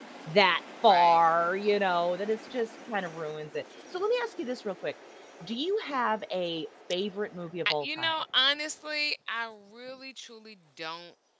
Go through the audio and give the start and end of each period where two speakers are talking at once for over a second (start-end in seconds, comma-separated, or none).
none